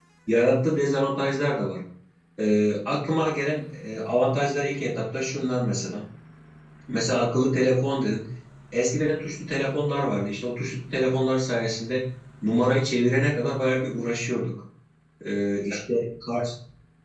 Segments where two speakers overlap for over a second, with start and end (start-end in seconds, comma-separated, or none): none